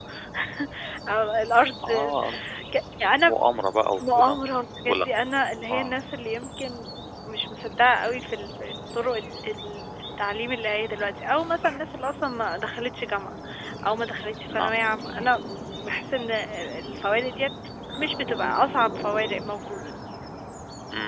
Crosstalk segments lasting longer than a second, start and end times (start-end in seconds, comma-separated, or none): none